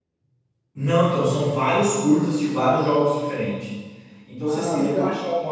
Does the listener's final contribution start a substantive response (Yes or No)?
No